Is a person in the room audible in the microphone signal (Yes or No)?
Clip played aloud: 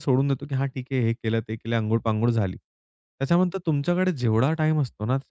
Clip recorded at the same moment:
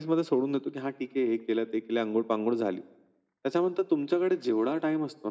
No